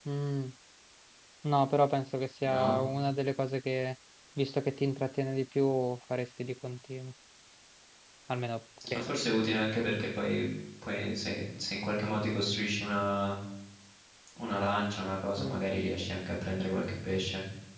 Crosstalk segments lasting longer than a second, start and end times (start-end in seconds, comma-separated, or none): none